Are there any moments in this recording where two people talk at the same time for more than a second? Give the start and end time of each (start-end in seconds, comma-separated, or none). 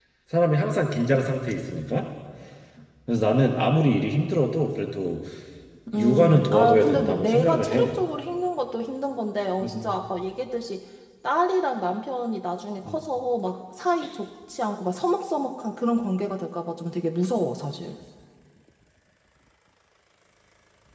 5.9-7.9